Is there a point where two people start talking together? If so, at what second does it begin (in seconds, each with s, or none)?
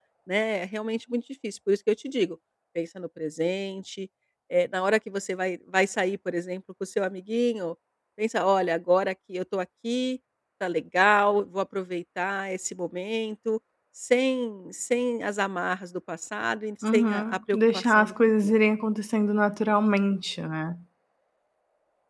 16.8 s